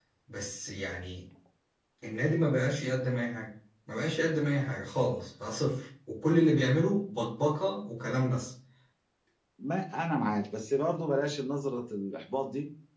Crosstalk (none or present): none